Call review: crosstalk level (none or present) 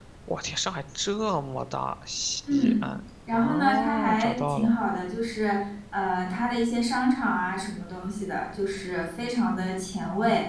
present